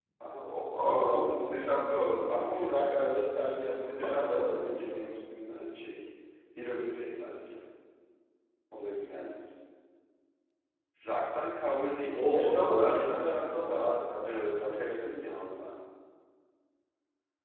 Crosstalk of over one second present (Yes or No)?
Yes